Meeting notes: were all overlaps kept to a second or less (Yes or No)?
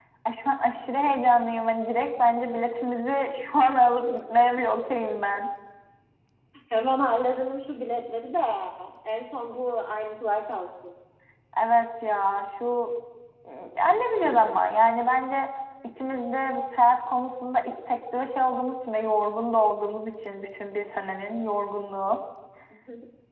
Yes